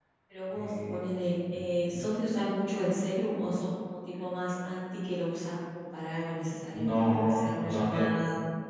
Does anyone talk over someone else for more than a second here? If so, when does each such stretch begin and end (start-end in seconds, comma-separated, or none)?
6.7-8.1